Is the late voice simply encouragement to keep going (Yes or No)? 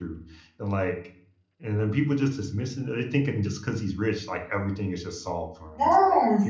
No